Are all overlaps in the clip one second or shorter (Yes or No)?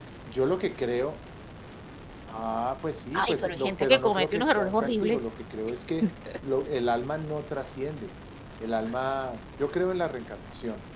No